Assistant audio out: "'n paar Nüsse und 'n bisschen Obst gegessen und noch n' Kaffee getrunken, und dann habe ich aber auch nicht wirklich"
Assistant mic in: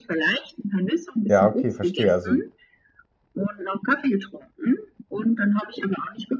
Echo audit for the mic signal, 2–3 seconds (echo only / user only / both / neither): both